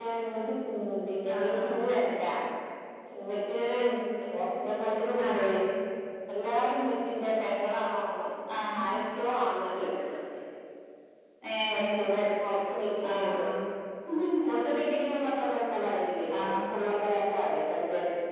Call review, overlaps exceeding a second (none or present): none